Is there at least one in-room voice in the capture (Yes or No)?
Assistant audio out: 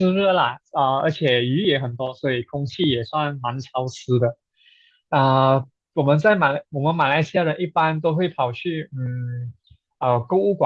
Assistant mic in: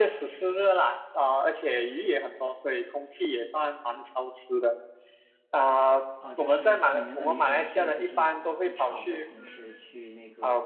Yes